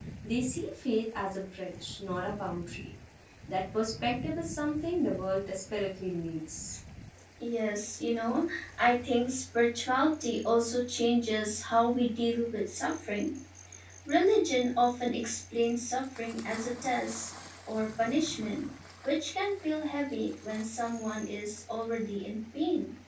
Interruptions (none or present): none